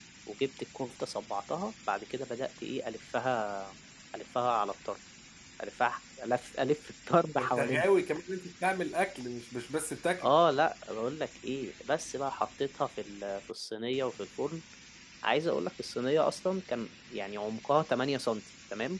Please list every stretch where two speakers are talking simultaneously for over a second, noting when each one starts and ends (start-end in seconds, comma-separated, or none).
none